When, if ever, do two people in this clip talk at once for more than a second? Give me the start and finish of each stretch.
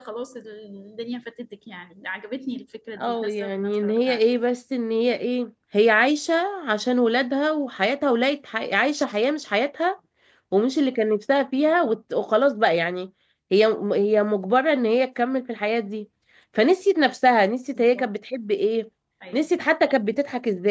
3.0-4.3

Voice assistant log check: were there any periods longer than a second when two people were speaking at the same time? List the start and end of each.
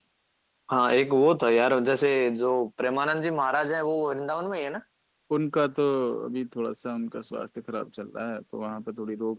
none

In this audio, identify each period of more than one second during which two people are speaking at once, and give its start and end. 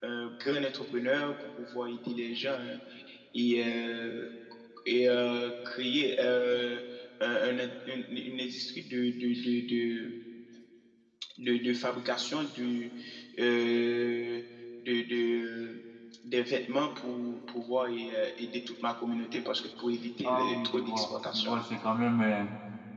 20.2-21.5

